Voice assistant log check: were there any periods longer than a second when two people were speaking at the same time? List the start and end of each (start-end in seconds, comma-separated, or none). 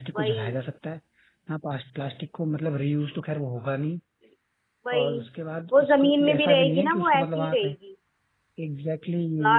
5.7-7.8